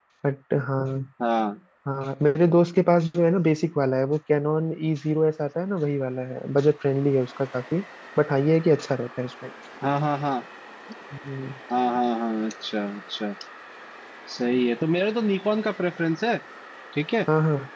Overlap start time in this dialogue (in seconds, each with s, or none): none